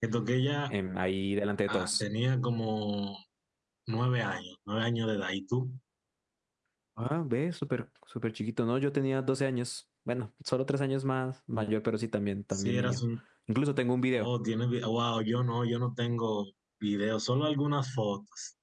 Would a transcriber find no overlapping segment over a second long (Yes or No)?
Yes